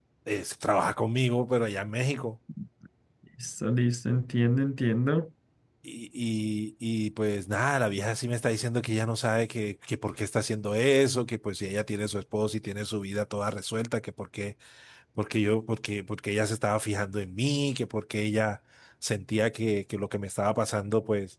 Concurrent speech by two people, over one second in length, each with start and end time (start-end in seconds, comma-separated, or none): none